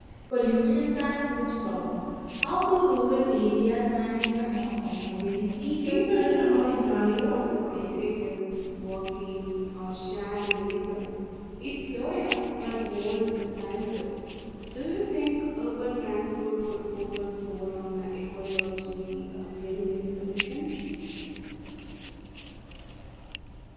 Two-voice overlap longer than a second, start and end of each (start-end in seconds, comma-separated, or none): 5.8-7.4